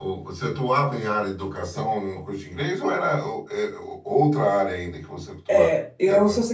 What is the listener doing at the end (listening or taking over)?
taking over